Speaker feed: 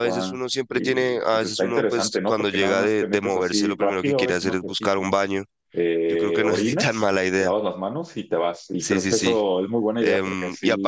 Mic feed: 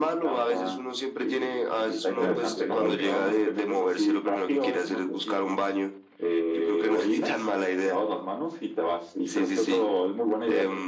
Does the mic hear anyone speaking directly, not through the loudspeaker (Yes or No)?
Yes